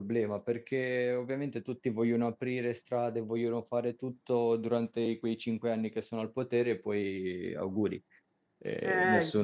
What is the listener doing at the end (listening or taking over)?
taking over